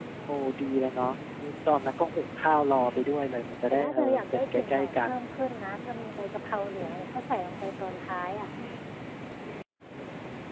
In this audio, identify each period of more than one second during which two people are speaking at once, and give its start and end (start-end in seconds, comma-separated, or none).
3.7-5.1